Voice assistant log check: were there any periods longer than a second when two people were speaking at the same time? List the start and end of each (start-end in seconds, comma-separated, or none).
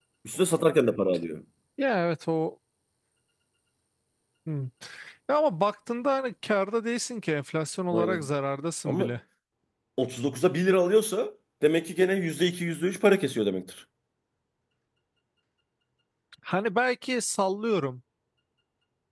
none